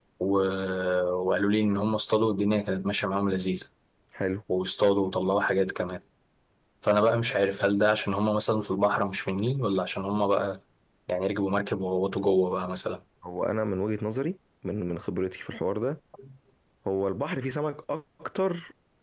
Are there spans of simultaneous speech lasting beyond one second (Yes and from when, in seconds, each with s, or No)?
No